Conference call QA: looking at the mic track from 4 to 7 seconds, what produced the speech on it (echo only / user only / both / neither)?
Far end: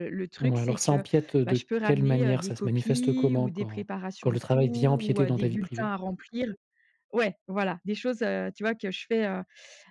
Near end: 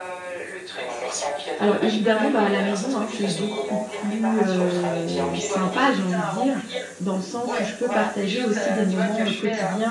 both